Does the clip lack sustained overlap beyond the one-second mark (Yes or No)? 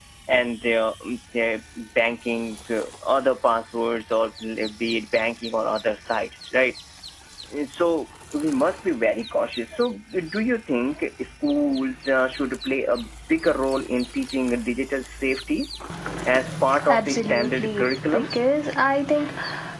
No